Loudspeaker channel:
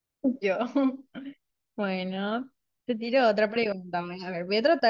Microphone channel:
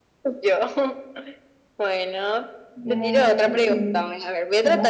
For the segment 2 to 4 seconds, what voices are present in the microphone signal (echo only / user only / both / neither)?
both